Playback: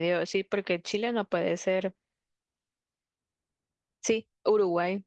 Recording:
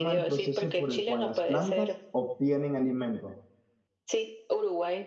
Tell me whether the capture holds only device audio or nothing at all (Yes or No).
No